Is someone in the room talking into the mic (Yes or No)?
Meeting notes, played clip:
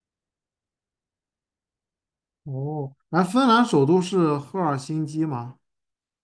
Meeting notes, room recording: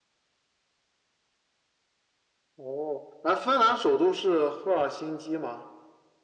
No